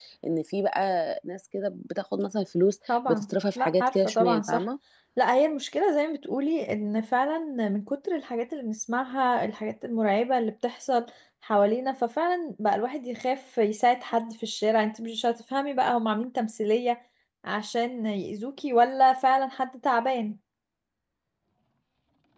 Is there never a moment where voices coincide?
No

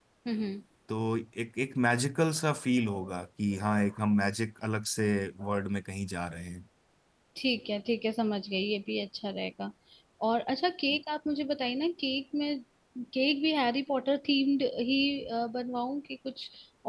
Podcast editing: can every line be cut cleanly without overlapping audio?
Yes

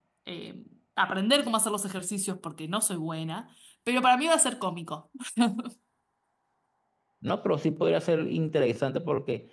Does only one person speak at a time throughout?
Yes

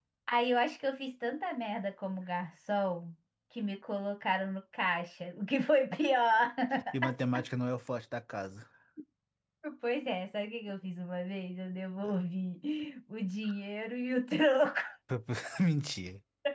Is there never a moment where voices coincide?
Yes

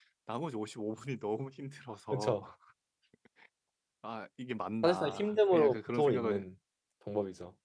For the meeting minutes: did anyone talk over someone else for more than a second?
Yes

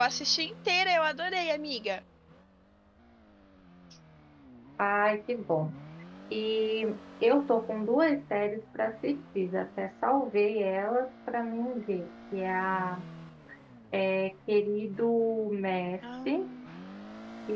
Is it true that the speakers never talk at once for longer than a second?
Yes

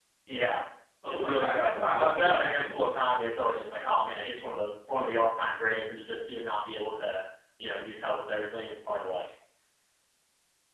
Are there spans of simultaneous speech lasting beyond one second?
Yes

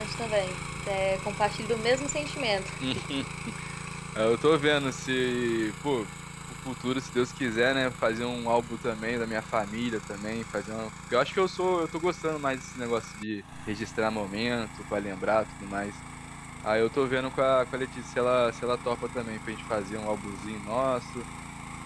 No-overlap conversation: Yes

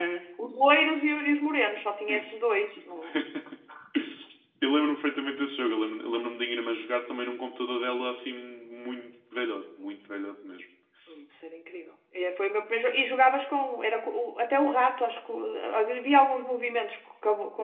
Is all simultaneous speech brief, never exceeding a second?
Yes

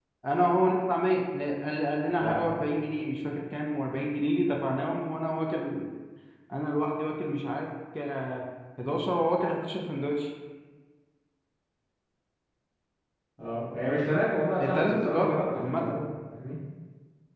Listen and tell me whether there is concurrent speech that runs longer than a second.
Yes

